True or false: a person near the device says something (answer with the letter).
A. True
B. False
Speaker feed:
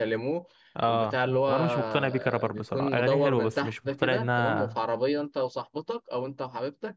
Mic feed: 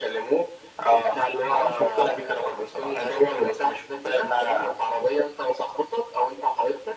B